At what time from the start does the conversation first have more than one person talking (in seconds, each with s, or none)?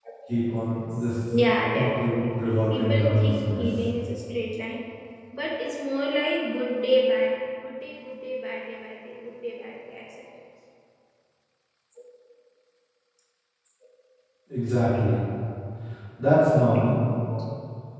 1.7 s